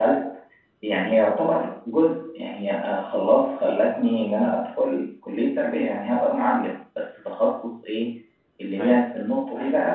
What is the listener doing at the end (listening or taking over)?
listening